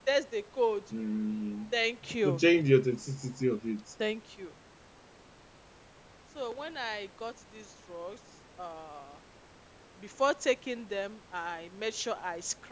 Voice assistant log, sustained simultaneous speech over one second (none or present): none